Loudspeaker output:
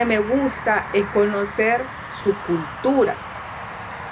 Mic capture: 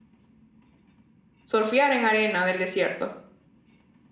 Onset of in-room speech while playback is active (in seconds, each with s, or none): 1.4 s